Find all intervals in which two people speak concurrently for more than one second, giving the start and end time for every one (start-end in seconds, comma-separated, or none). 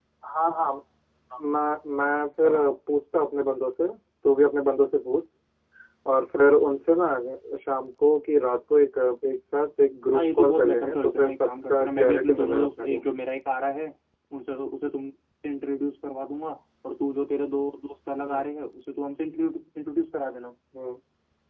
10.1-13.0